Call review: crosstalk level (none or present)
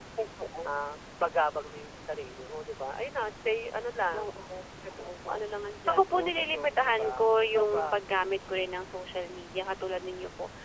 present